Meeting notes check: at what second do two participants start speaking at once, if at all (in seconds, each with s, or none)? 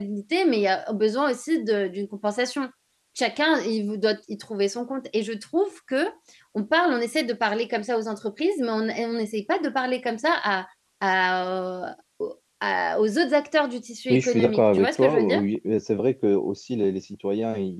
14.1 s